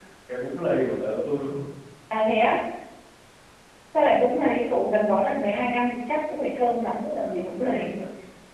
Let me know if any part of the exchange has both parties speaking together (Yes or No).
Yes